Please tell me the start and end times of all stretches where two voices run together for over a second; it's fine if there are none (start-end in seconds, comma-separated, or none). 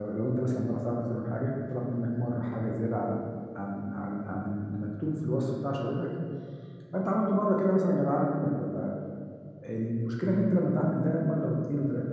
none